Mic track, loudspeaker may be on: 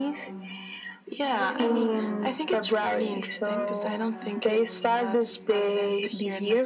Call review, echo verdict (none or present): present